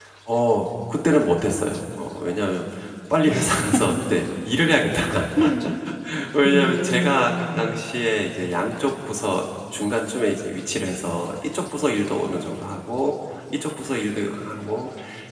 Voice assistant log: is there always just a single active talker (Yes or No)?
No